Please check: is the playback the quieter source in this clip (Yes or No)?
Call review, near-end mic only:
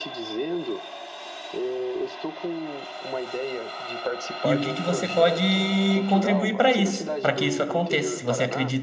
Yes